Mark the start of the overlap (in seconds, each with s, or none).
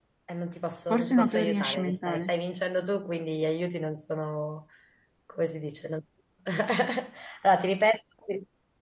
0.9 s